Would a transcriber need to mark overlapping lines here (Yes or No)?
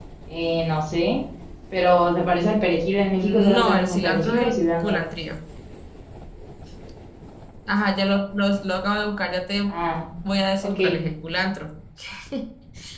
Yes